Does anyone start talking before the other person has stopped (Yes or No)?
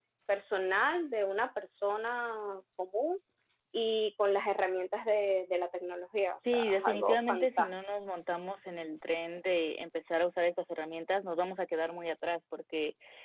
Yes